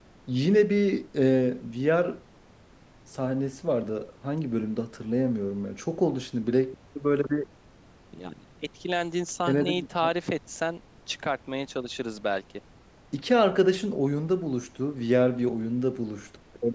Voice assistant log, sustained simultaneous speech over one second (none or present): none